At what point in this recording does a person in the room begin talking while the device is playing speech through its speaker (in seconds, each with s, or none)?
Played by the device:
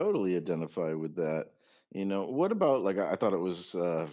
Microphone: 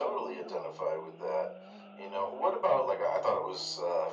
none